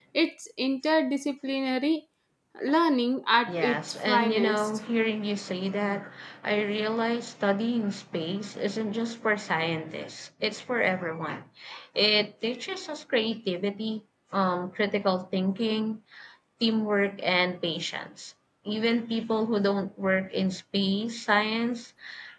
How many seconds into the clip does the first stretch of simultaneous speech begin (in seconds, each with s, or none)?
3.5 s